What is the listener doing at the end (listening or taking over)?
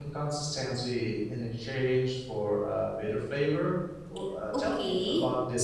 taking over